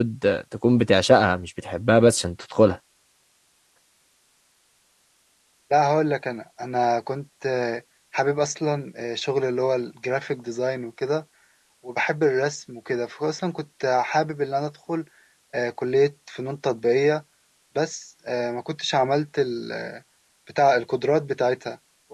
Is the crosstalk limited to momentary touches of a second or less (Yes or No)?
Yes